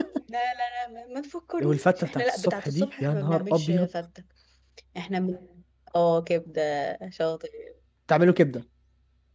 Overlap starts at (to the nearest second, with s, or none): 2 s